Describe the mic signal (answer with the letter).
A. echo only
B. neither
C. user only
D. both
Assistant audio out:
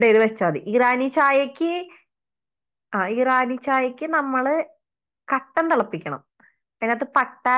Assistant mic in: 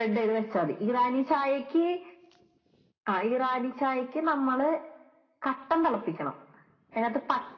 A